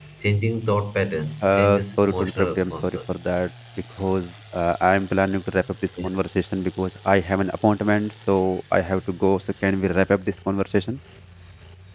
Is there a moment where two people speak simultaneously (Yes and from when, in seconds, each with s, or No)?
Yes, from 1.4 s